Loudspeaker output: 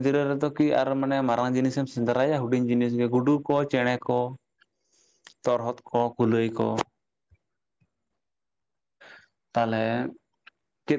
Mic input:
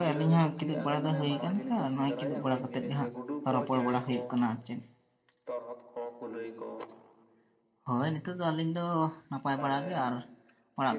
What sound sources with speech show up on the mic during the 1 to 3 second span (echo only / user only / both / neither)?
both